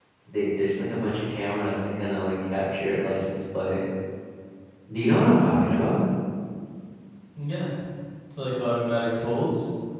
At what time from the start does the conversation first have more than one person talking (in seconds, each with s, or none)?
none